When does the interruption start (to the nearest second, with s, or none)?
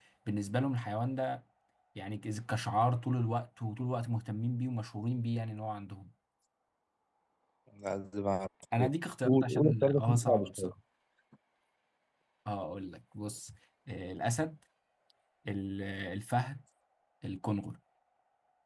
9 s